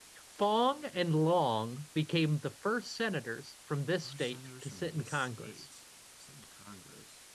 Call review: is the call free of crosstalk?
No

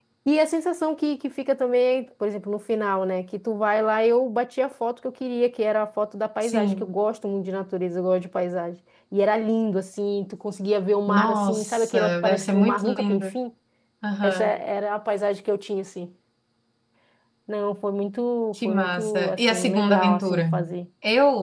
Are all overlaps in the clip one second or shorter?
No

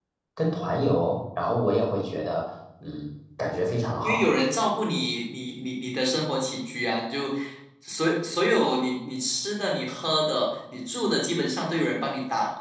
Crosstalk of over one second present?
No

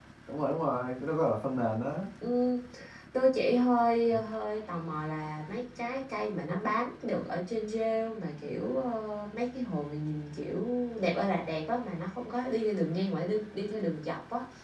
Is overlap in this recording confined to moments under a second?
Yes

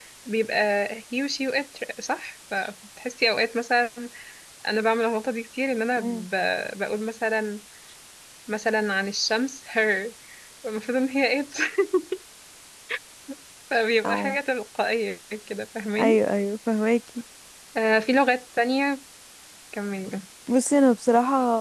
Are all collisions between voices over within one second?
Yes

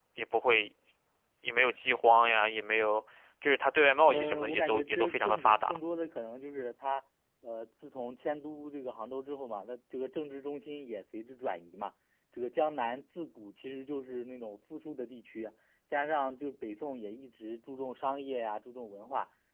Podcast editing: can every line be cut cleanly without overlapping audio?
No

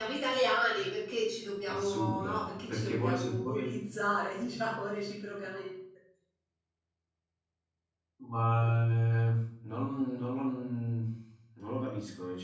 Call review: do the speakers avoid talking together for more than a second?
No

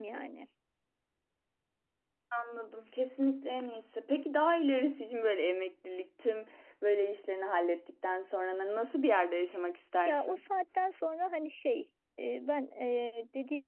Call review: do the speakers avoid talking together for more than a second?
Yes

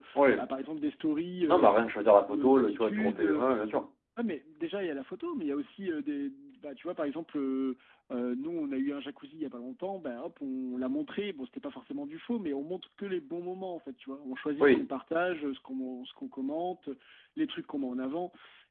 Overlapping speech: Yes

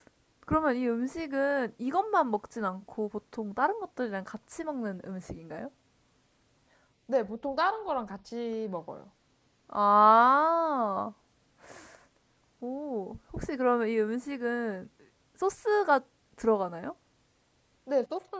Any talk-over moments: No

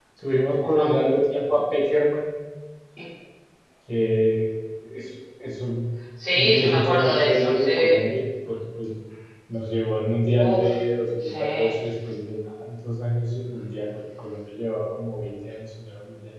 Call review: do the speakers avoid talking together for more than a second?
No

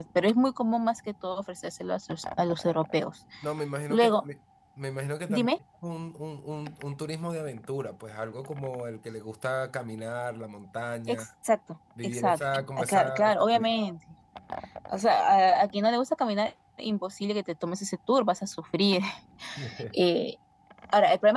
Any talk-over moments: Yes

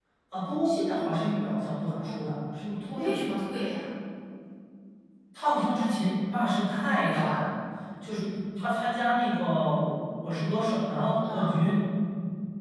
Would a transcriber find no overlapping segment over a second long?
Yes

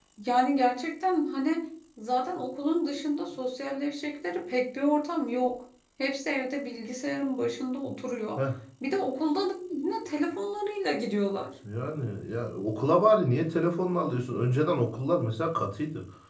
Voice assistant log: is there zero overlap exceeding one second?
Yes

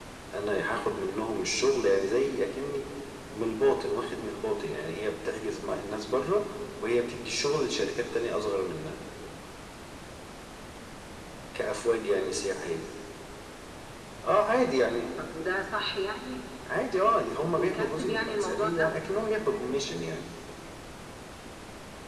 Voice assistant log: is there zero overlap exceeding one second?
No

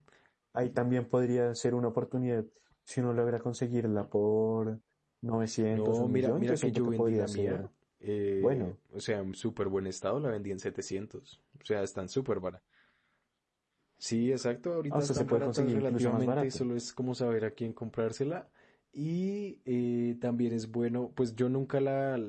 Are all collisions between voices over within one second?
No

